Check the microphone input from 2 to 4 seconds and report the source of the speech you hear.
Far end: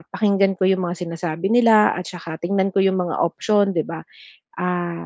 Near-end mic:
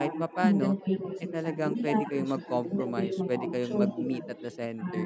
both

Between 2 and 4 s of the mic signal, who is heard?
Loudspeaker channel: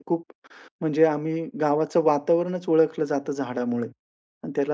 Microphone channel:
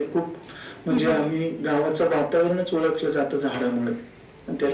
echo only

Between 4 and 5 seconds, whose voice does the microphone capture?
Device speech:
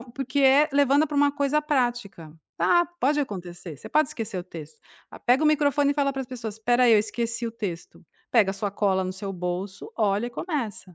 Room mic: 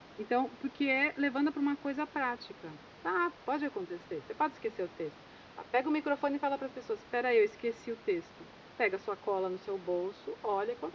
echo only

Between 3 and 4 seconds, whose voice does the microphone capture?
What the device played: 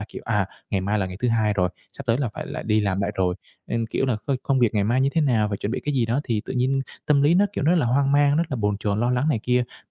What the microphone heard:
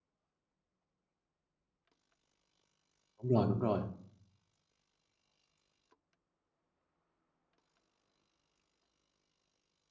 user only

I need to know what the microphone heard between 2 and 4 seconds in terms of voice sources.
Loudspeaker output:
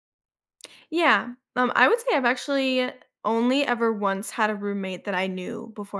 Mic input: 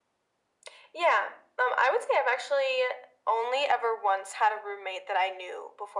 echo only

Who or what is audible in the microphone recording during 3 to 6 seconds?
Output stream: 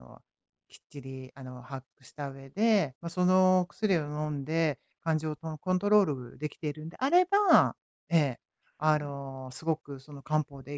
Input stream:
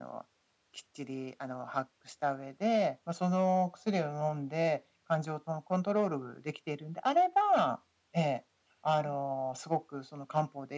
echo only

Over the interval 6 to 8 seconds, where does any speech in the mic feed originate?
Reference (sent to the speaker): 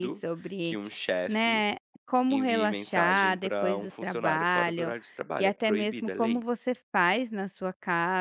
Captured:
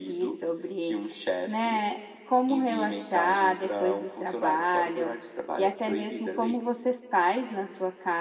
echo only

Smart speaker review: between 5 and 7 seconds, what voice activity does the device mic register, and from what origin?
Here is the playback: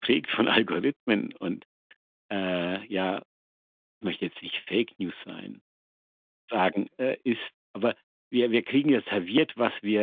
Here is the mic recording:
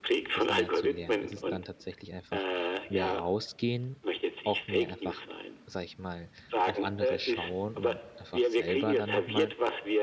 both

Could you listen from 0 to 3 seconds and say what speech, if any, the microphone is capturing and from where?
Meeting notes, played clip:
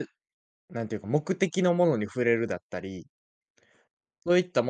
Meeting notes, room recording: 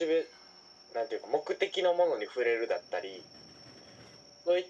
echo only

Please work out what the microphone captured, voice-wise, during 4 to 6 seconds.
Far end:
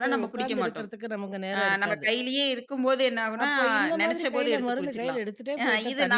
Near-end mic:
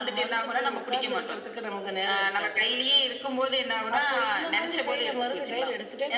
echo only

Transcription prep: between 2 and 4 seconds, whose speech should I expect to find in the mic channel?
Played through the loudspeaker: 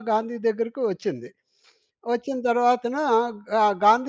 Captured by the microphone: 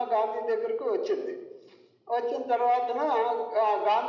echo only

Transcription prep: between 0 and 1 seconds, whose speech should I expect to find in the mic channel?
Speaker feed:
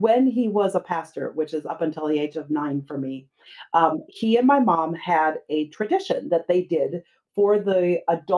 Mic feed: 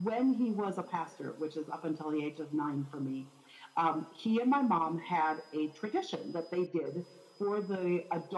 echo only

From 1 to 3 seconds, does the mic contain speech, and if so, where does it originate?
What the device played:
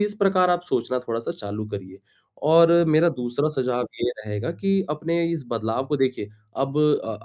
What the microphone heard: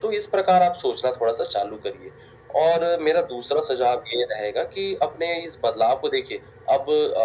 echo only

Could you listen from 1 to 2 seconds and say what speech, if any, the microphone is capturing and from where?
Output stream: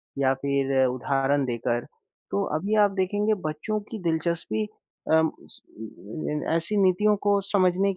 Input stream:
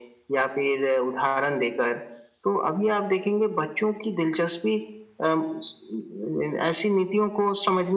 echo only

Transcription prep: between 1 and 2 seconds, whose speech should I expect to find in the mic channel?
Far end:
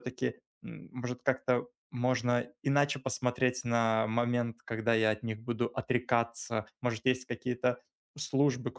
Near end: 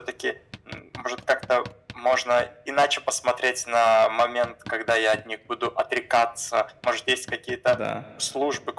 echo only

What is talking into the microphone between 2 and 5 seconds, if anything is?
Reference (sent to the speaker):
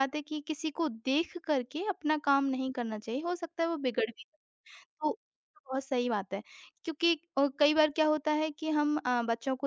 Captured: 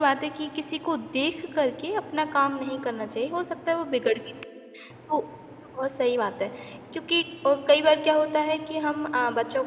echo only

